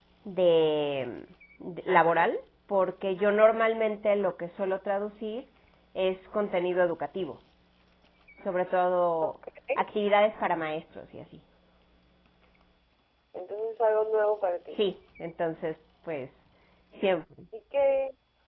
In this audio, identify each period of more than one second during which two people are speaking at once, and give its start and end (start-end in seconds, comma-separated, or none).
none